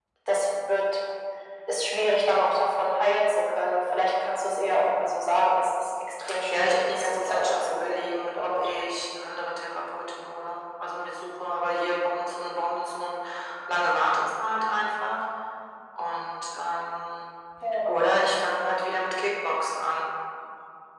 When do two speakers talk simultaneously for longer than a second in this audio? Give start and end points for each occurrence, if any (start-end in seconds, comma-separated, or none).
6.5-8.6